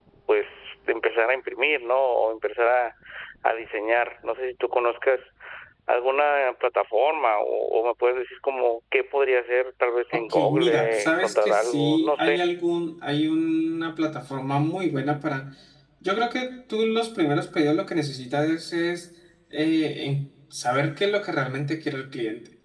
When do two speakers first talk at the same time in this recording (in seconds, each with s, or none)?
10.1 s